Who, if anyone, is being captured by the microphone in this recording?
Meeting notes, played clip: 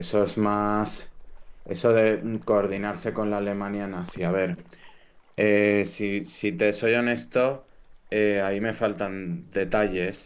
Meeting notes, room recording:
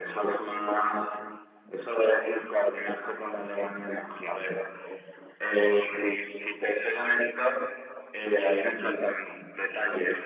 echo only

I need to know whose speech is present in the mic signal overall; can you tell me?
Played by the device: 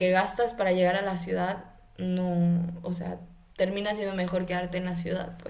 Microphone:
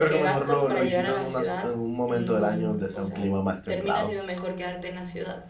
both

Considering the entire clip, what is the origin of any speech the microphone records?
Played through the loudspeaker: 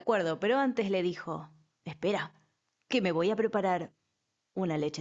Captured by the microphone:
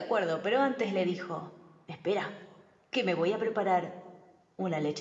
echo only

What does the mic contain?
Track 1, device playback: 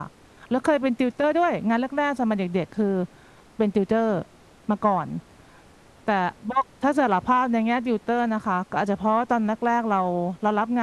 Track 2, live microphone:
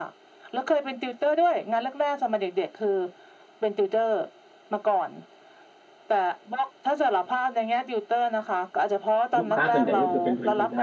both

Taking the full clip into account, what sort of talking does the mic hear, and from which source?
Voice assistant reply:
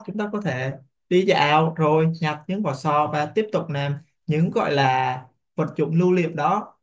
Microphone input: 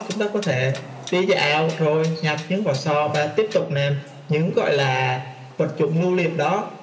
echo only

